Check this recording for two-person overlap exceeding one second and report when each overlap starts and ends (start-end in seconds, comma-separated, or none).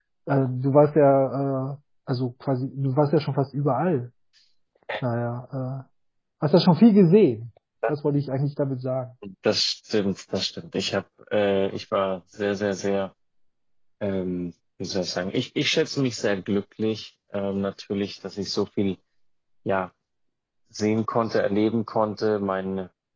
none